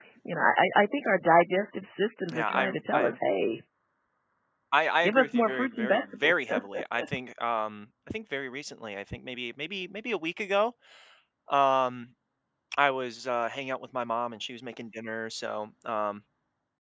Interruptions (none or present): present